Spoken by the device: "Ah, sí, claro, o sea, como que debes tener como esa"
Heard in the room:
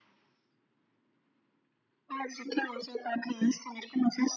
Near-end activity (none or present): none